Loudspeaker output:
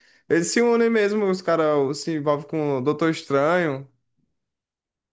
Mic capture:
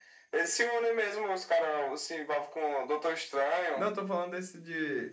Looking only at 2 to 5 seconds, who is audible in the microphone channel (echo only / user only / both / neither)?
both